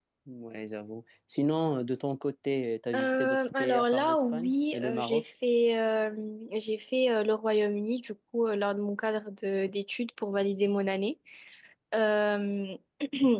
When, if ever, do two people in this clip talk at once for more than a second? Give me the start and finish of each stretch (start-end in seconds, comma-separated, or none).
3.0-5.2